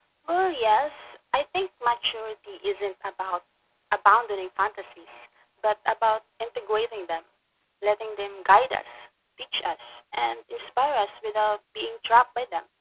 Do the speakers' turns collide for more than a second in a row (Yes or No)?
No